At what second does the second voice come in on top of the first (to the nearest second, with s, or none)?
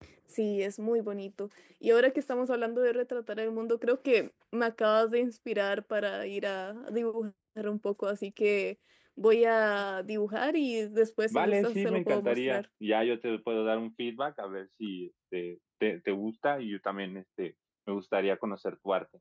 11 s